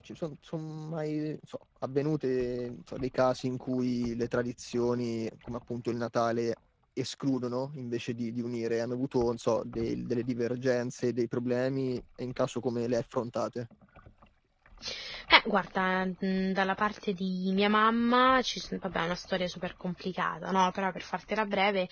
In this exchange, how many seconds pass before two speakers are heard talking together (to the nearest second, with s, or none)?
none